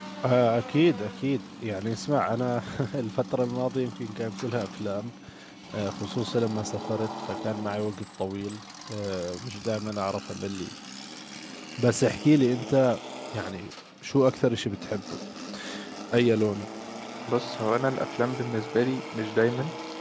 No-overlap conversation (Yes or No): Yes